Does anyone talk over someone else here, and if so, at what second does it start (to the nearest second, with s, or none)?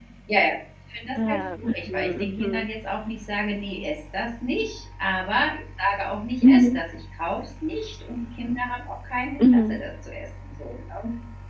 1 s